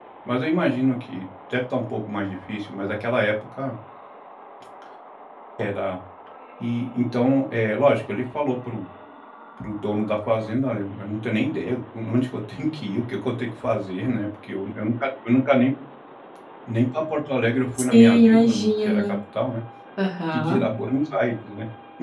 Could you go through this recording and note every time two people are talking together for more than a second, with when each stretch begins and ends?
17.9-19.1

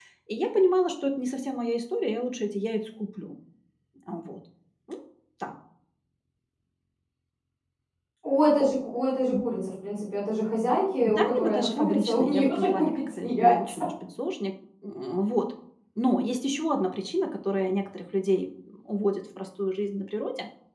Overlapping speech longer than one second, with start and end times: 11.0-13.6

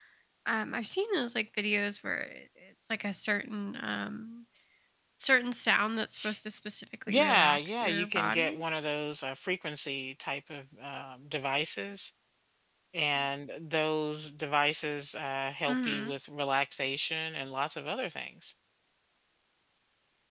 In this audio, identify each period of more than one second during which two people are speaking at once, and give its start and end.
7.1-8.6

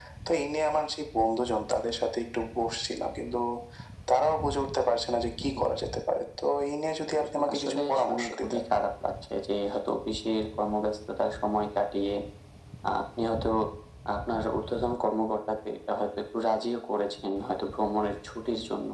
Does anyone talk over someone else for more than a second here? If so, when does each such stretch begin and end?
7.2-8.6

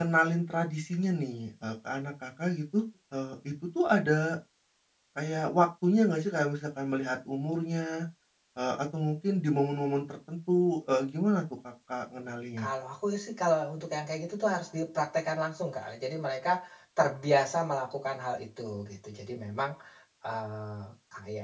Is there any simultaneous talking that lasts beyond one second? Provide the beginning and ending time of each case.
none

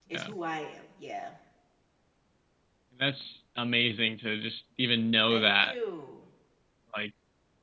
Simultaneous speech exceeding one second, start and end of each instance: none

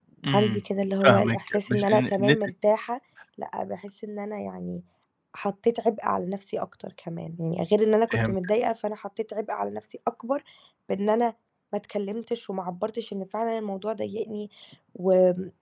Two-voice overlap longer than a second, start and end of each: 1.0-2.4

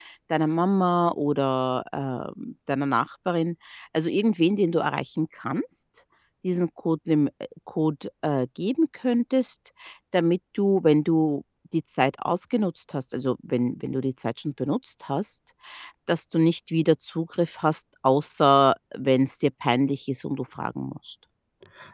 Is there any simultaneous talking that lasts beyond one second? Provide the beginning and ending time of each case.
none

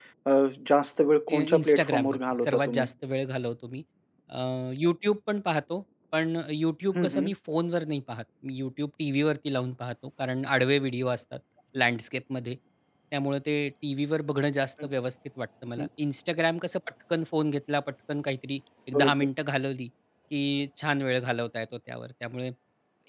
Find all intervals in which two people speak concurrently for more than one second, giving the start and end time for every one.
1.3-2.9

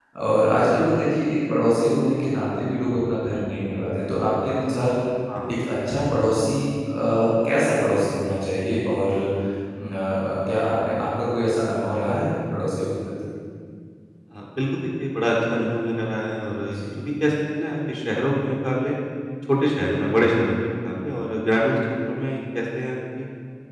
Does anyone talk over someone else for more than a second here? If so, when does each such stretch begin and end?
none

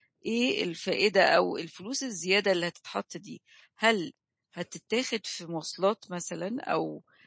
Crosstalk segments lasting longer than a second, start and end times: none

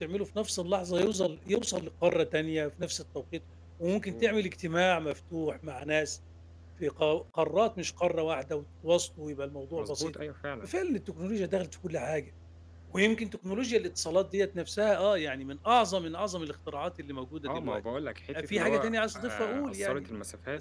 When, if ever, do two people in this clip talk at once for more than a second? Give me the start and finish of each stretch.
18.4-20.0

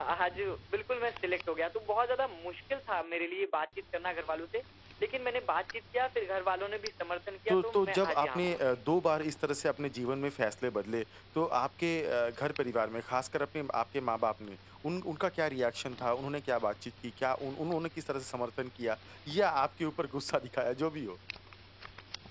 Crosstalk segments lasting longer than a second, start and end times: 7.5-8.8

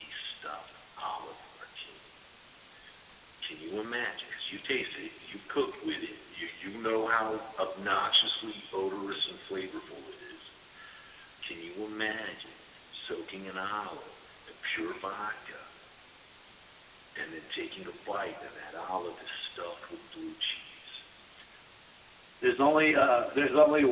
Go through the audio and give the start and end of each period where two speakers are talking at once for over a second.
none

